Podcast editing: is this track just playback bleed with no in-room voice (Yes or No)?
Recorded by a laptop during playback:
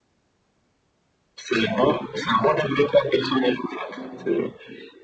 Yes